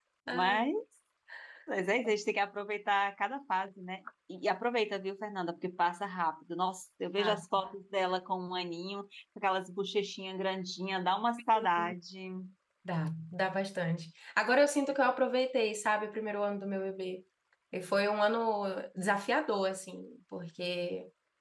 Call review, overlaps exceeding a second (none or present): none